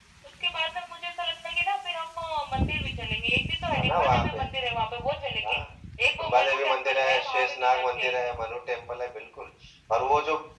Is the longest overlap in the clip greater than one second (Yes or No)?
Yes